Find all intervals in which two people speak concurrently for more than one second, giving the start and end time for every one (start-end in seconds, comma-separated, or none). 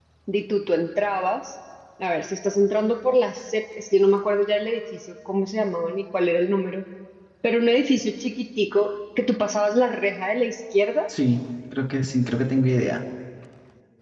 none